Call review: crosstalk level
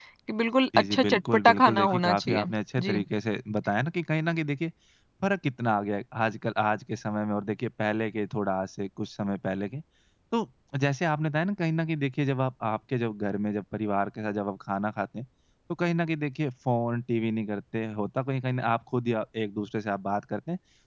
present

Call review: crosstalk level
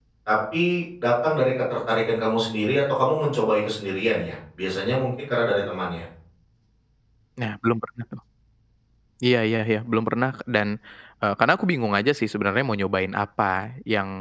none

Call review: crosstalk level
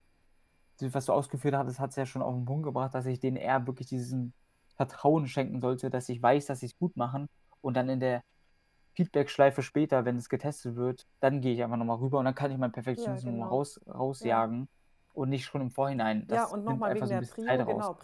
present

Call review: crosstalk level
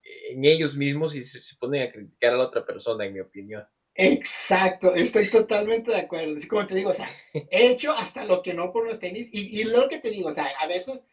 none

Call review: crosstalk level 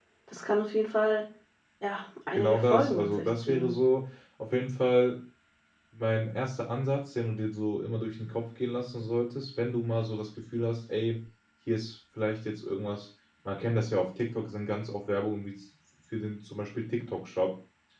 present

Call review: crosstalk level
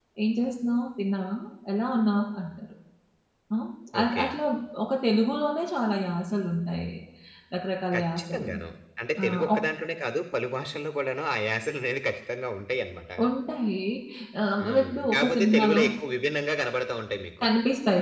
present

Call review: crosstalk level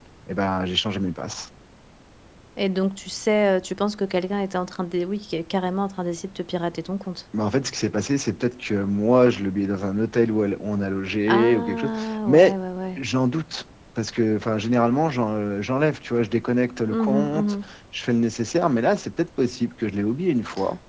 present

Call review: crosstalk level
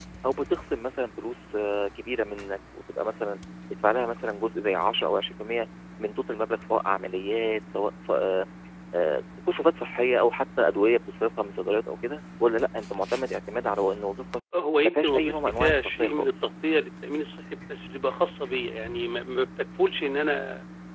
present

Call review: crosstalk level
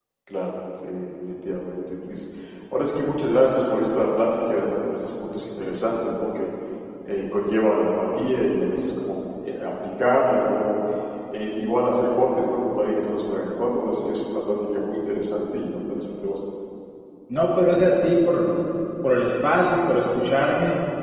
none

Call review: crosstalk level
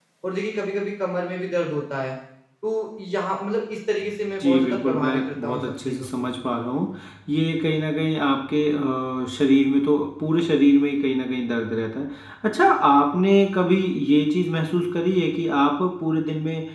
present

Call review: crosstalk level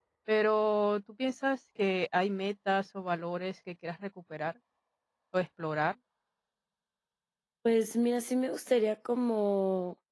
none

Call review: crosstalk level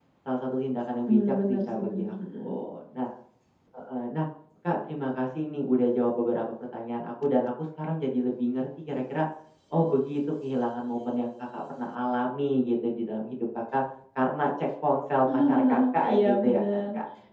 present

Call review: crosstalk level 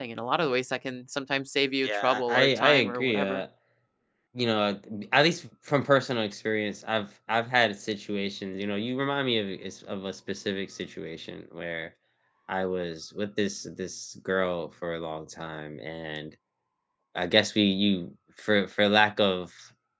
present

